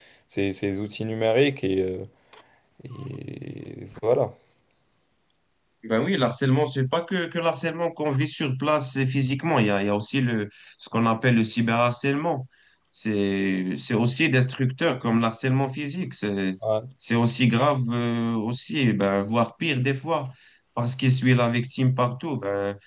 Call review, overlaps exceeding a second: none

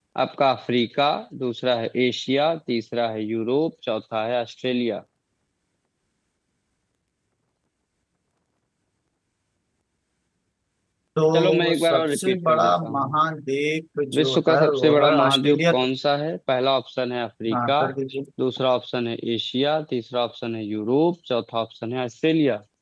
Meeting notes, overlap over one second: present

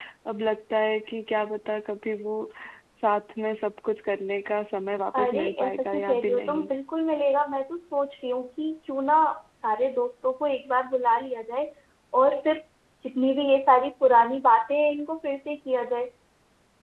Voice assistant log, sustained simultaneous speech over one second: present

